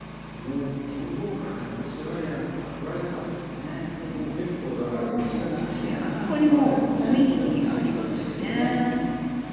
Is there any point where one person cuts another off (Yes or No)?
Yes